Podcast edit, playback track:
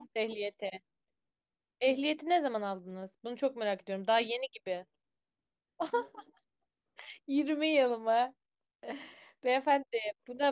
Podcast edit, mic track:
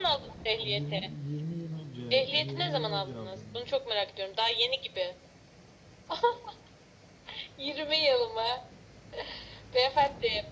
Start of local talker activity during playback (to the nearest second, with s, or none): 1 s